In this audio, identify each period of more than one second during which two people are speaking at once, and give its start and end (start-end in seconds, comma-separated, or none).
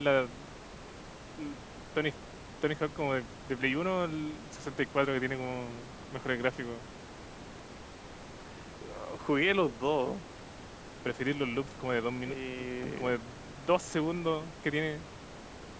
none